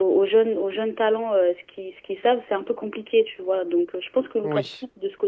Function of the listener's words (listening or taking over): listening